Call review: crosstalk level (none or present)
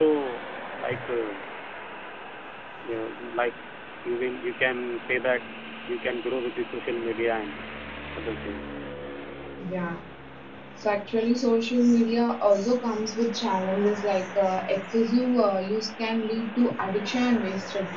none